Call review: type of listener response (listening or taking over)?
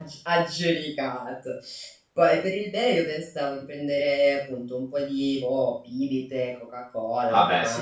listening